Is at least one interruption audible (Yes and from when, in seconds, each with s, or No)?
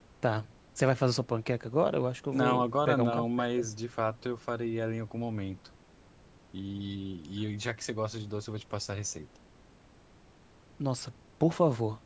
Yes, from 2.3 s